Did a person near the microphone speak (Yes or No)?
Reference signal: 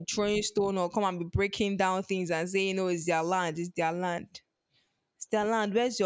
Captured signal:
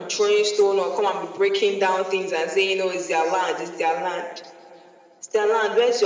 No